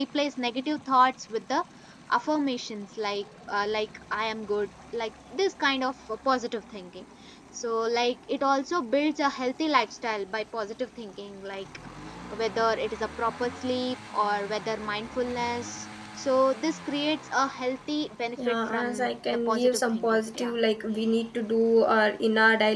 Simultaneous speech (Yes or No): Yes